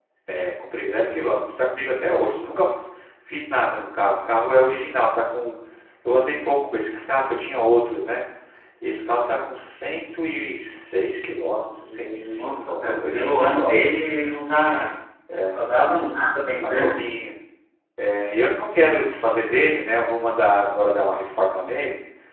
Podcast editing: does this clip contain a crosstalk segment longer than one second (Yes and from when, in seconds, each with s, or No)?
Yes, from 11.8 s